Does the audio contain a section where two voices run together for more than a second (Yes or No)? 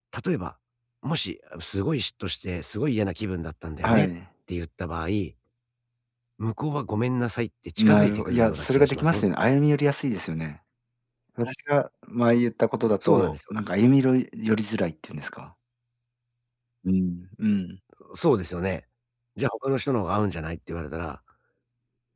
Yes